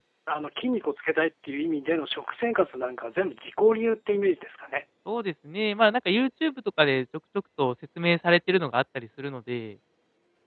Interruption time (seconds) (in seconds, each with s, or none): none